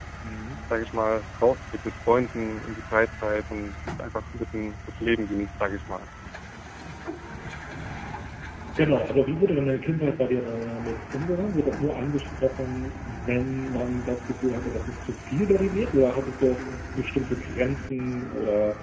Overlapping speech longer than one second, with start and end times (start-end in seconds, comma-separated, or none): none